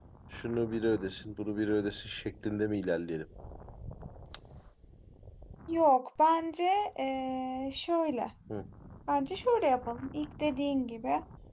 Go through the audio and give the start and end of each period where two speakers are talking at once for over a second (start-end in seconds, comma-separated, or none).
none